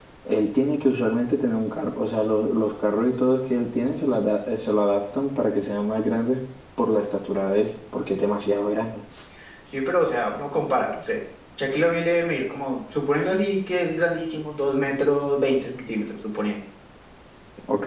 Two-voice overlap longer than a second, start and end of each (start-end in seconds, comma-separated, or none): none